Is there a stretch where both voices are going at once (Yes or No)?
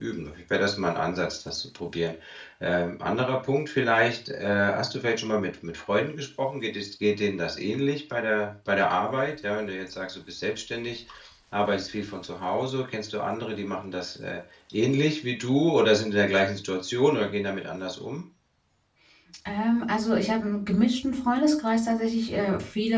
No